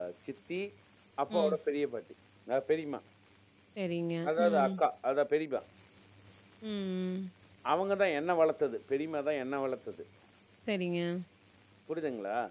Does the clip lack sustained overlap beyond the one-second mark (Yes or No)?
Yes